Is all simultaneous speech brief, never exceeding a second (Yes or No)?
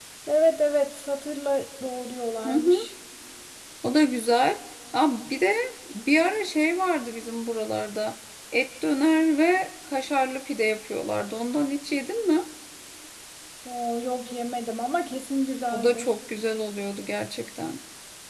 Yes